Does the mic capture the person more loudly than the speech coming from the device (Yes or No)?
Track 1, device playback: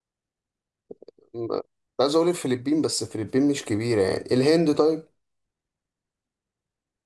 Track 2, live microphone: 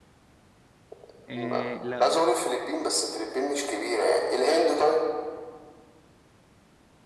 No